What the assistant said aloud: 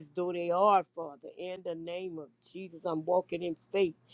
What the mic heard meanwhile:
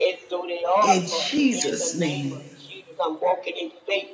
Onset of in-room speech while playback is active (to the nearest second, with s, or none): 1 s